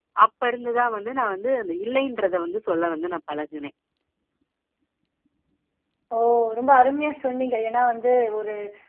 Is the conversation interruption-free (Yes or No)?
Yes